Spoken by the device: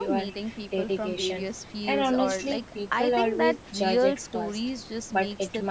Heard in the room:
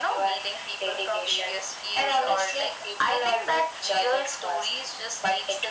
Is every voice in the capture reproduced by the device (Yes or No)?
Yes